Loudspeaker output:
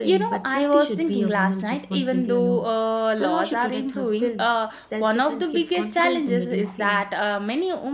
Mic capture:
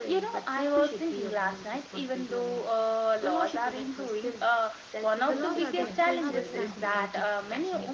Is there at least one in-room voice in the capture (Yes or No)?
Yes